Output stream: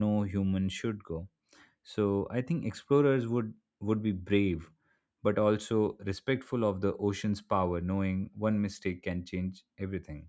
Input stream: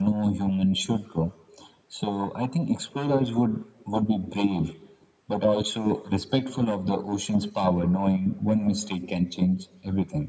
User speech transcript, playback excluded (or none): none